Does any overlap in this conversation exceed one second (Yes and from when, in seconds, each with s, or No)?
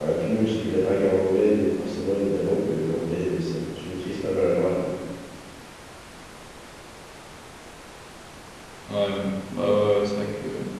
No